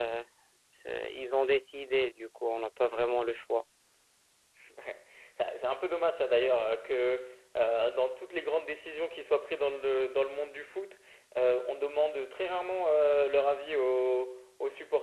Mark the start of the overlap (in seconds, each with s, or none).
none